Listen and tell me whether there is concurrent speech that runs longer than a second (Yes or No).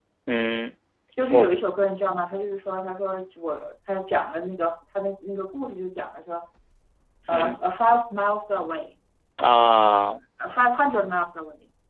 No